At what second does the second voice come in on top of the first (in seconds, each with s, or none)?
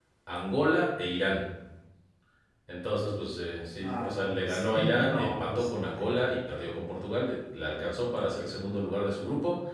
3.8 s